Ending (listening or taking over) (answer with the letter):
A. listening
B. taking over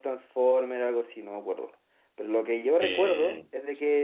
A